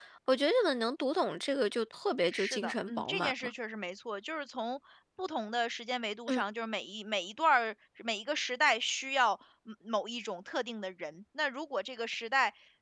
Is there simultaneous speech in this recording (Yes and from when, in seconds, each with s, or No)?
Yes, from 2.3 s